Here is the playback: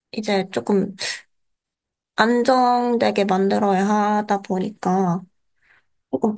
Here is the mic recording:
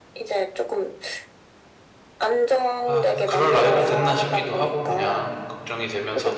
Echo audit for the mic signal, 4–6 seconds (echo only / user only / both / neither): both